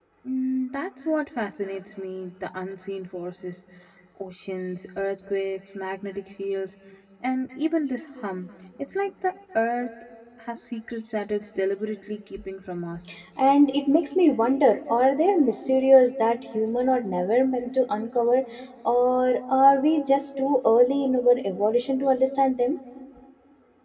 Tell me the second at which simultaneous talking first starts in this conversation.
none

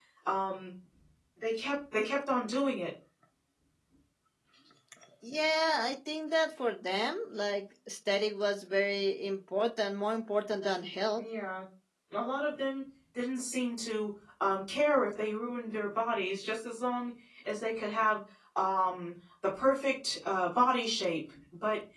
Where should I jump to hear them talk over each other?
none

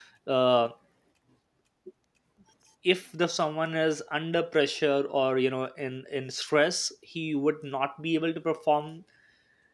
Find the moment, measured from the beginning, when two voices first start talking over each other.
none

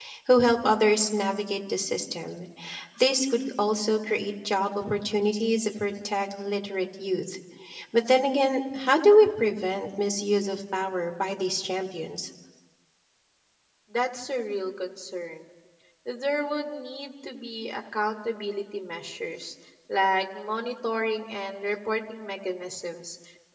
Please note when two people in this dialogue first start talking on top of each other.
none

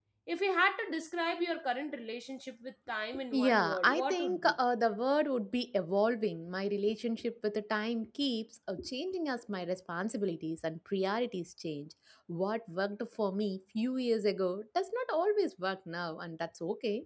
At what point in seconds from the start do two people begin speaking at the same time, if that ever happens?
3.3 s

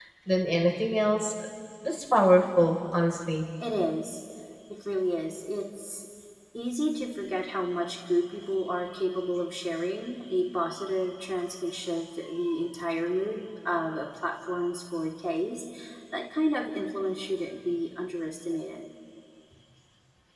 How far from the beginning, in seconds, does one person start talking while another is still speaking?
none

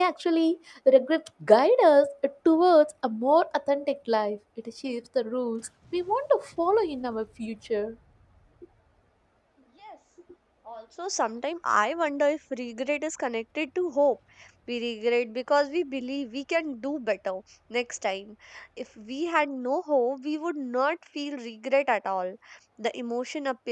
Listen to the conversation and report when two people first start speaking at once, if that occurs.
none

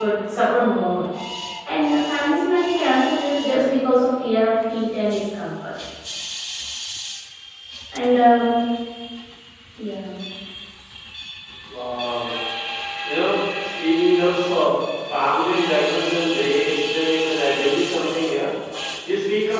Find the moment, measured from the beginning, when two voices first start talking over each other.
none

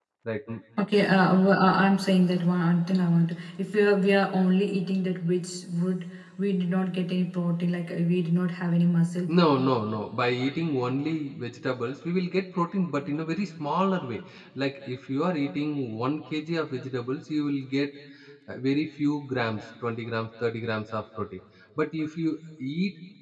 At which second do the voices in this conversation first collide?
none

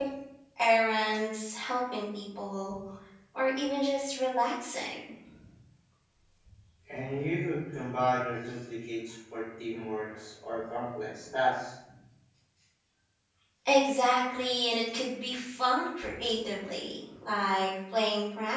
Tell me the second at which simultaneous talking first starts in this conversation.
none

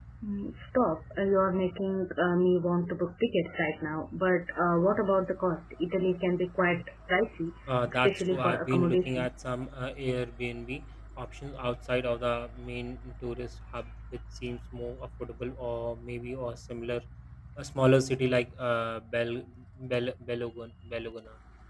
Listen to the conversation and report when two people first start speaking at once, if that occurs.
7.9 s

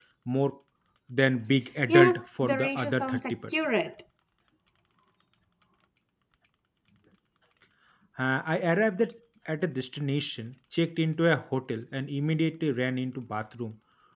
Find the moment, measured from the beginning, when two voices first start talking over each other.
1.9 s

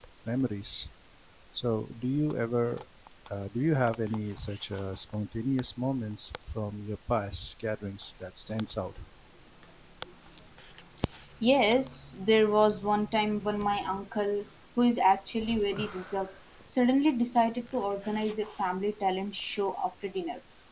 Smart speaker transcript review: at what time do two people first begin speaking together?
none

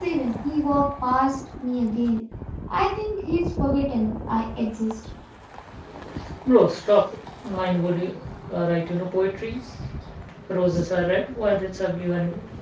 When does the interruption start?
none

